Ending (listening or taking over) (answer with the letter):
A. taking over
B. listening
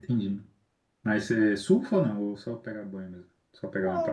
A